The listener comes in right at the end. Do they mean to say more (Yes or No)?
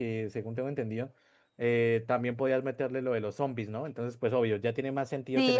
Yes